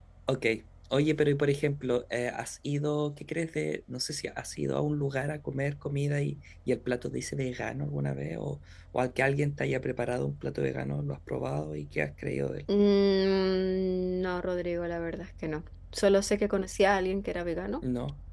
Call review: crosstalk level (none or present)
none